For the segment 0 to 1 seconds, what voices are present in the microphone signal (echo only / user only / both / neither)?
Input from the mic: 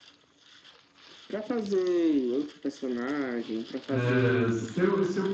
neither